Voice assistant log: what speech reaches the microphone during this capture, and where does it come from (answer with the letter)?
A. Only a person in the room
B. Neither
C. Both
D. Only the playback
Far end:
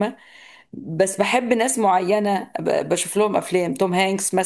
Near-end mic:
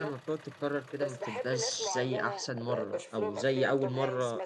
C